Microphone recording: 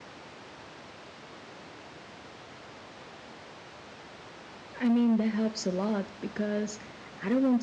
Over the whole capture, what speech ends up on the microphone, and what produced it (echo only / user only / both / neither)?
user only